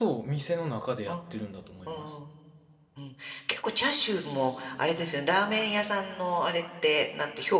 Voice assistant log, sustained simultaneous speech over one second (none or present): none